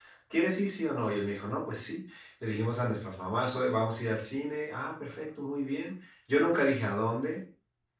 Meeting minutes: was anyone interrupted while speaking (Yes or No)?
No